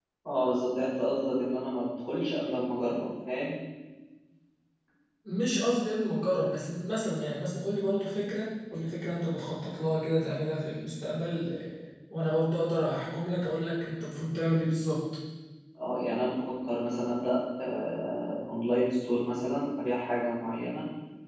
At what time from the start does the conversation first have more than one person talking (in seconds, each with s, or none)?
none